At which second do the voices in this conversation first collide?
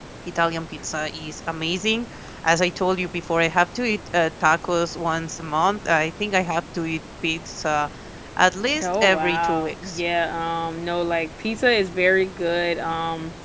9 s

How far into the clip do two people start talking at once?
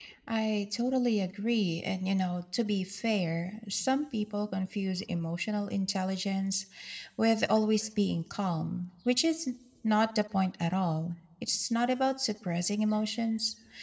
none

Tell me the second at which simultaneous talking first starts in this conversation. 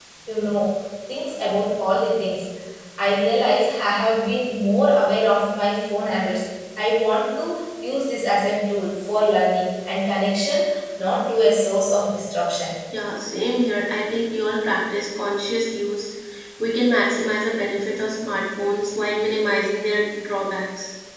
none

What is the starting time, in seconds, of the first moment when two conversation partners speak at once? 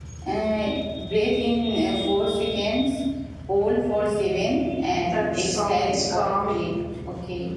5 s

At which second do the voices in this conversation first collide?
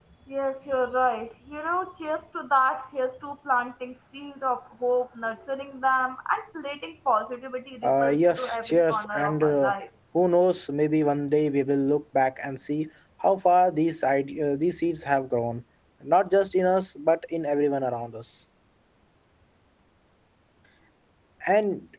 8 s

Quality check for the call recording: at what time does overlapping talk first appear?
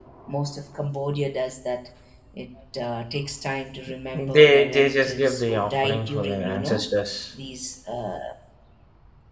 4 s

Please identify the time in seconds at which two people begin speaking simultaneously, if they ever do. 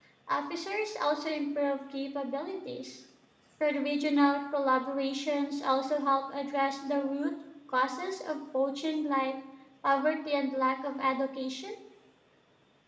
none

